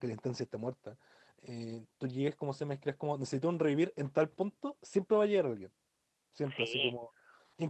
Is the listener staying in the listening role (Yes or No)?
Yes